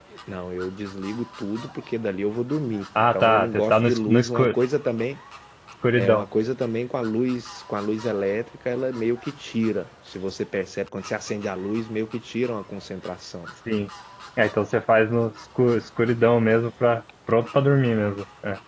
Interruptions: present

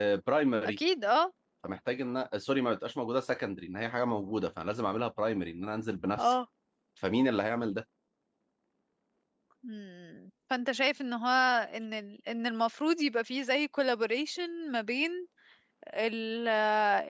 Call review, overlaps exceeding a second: none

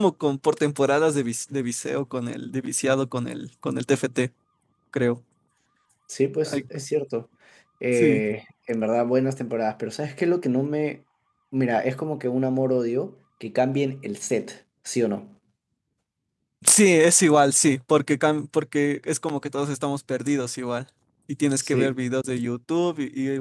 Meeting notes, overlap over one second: none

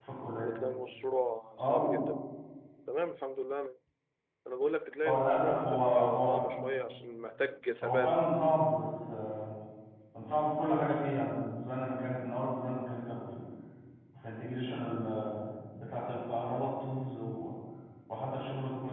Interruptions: present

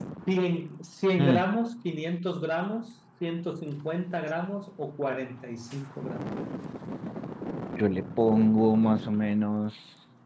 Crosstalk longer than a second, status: none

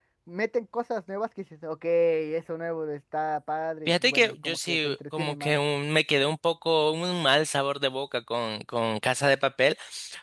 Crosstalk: present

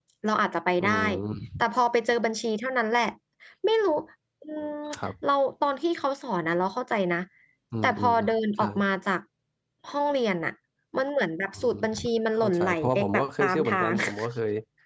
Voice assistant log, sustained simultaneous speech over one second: present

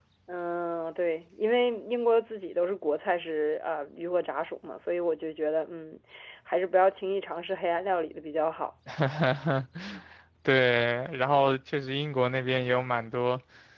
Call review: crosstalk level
none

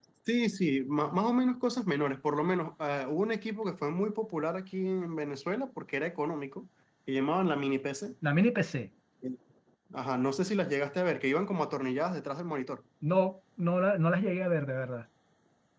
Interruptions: none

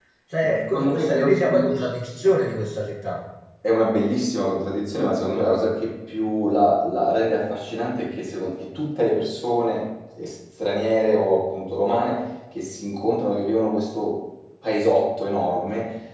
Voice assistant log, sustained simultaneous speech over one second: present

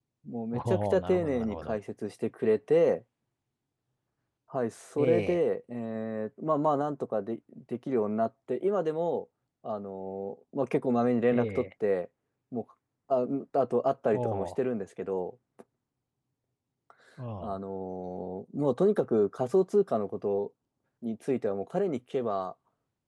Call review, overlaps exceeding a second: present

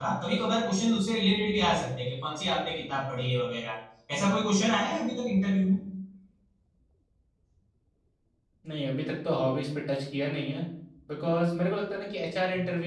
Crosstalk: none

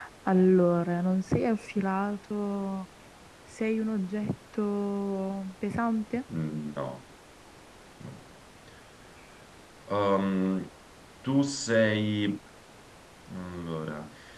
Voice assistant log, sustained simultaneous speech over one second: none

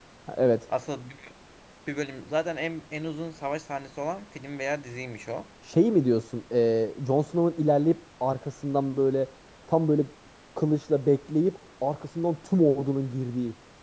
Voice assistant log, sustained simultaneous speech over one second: none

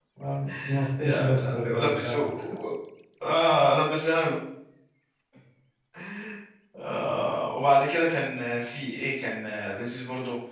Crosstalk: present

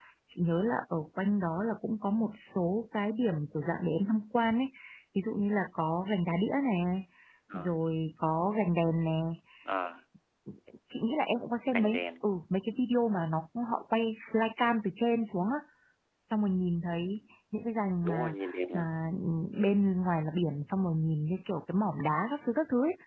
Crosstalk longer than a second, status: none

